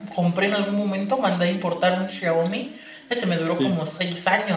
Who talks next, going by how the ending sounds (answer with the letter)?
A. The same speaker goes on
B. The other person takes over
A